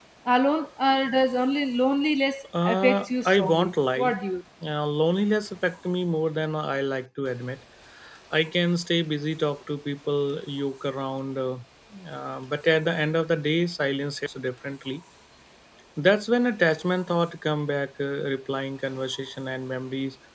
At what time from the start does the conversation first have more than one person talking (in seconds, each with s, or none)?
2.5 s